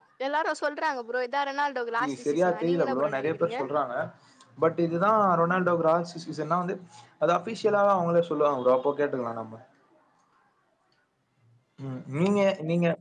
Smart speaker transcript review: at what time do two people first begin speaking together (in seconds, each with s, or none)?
2.0 s